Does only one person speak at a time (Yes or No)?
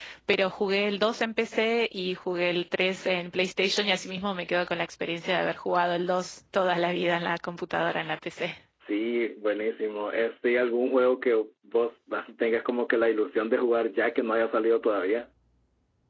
Yes